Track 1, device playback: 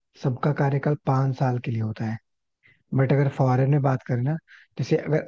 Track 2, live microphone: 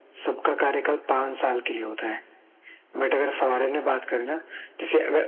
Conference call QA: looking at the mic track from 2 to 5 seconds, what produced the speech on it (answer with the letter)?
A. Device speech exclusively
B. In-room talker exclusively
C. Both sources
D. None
A